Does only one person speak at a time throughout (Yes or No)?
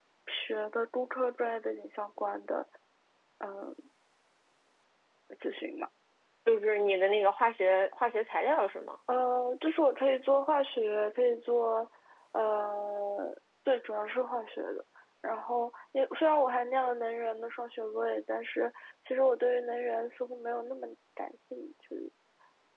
Yes